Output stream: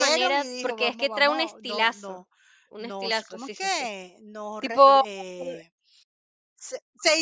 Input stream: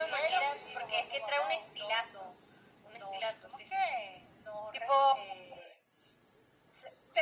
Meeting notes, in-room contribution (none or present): none